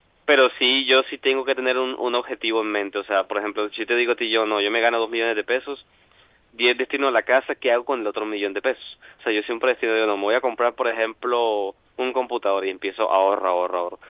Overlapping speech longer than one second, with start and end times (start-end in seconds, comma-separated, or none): none